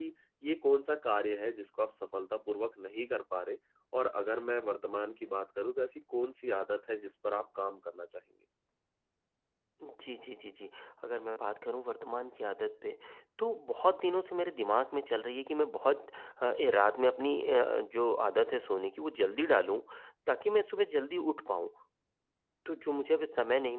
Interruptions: none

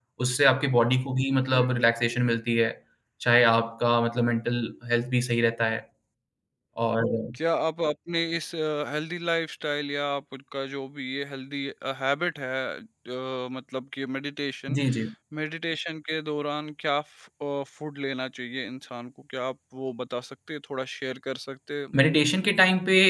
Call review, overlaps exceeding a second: none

